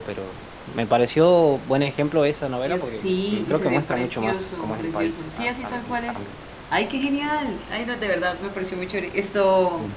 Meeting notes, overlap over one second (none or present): present